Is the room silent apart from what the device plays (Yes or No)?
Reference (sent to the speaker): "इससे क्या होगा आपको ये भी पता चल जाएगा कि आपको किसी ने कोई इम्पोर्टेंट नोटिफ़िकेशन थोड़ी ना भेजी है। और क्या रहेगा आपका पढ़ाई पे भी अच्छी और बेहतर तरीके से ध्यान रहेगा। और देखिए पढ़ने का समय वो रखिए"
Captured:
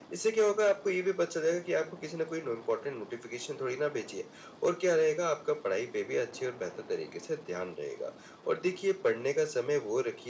Yes